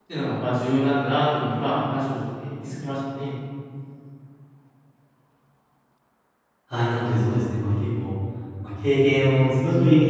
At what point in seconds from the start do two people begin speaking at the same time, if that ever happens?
none

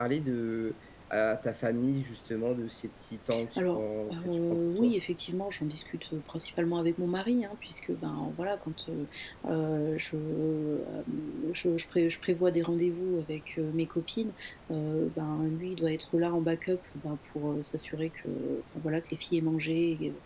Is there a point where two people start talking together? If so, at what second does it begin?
3.6 s

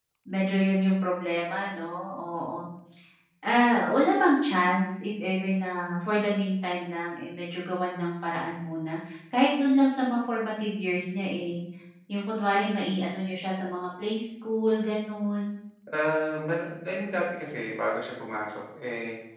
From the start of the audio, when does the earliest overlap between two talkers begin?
none

